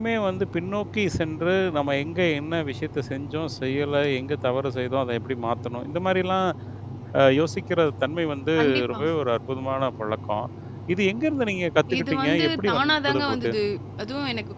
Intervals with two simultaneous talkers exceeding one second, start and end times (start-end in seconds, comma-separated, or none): 12.0-13.5